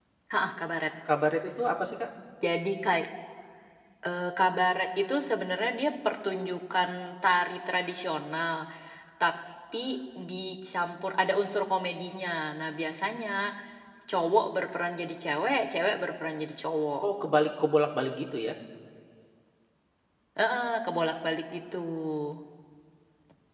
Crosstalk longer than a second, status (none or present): none